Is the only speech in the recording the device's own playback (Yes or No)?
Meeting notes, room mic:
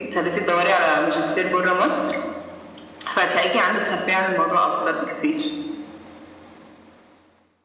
Yes